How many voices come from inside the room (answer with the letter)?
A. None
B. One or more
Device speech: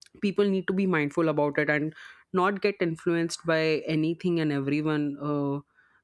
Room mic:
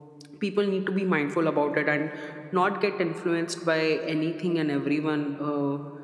A